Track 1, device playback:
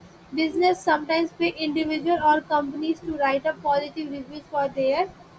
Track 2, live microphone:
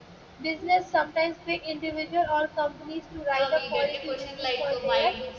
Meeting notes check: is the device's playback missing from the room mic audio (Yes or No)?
No